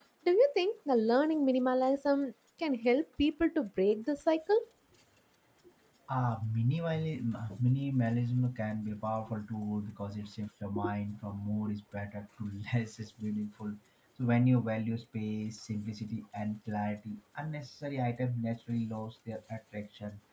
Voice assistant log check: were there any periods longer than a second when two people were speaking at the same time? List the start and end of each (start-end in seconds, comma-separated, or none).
none